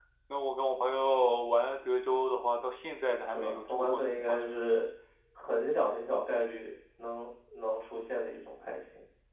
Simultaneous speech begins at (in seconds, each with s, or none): 3.3 s